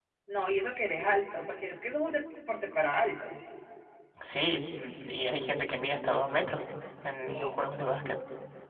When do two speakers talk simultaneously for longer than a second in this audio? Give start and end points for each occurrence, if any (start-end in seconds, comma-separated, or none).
none